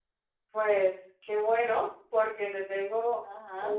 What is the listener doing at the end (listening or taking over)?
listening